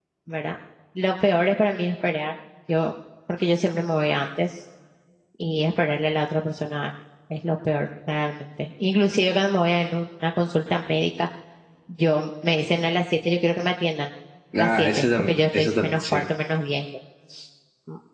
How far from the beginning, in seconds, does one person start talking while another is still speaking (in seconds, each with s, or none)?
14.6 s